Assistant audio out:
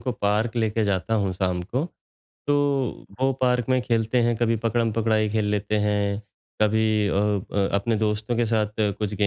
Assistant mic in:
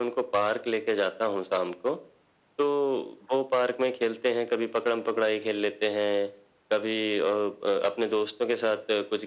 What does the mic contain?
echo only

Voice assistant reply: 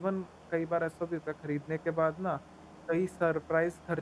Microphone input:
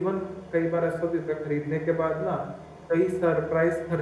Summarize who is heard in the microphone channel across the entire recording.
echo only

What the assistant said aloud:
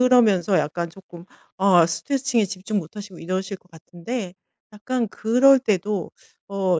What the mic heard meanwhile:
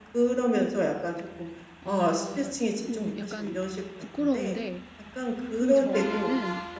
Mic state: both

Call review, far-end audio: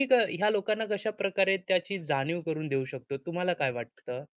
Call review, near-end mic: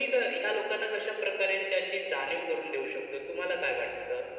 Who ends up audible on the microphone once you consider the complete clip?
echo only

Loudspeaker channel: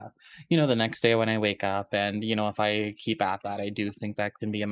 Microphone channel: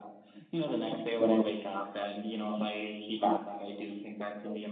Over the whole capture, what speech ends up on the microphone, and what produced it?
echo only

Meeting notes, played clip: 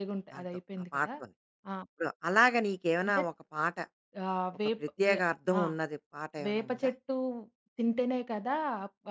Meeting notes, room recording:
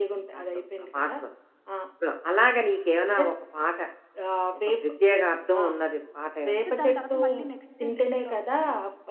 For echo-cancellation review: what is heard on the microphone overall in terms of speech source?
both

